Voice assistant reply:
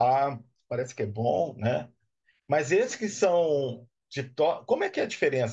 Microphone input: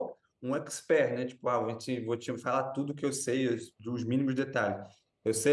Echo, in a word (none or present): none